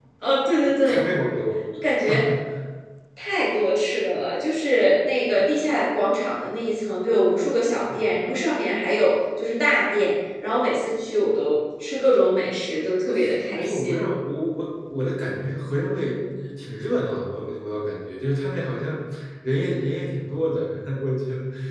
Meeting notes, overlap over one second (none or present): none